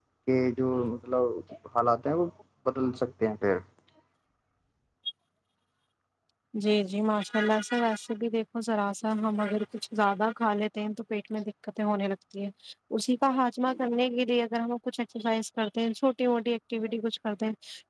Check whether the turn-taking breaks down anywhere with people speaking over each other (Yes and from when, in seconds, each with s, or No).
No